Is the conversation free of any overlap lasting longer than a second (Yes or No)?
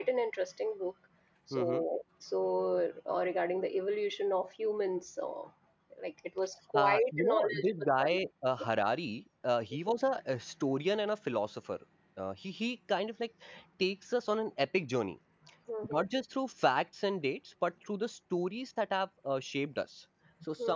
No